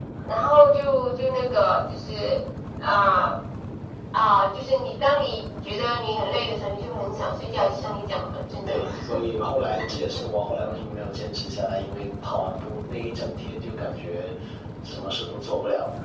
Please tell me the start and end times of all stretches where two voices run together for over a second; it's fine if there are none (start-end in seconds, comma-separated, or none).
none